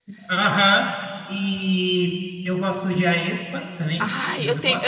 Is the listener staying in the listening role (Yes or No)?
No